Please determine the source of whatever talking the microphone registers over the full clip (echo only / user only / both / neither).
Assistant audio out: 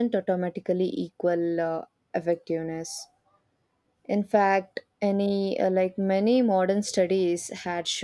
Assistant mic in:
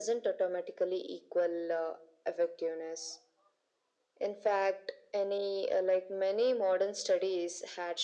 echo only